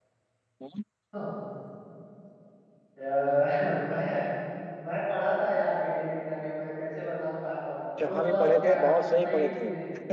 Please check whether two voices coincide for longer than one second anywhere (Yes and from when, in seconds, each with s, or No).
Yes, from 8.0 s